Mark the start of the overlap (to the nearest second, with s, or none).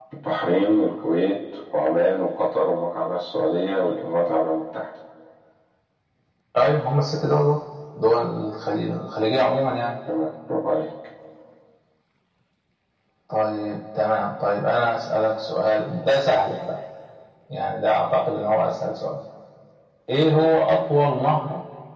none